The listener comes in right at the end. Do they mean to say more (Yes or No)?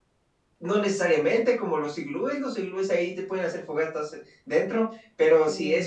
No